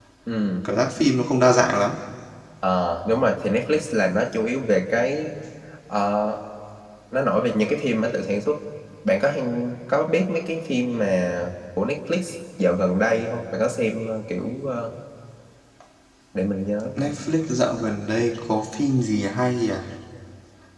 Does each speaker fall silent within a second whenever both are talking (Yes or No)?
Yes